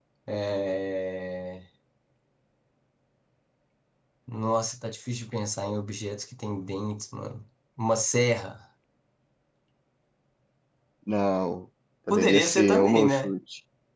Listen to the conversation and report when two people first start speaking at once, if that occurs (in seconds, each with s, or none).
12.1 s